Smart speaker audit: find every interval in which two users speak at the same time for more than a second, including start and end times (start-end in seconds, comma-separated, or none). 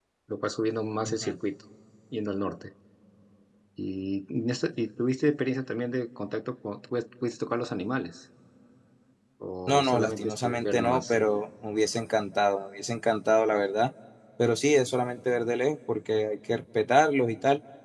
9.7-11.1